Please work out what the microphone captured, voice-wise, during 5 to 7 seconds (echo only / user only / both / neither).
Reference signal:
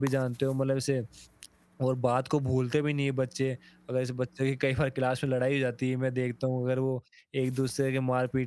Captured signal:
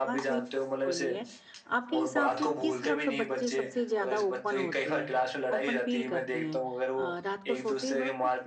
both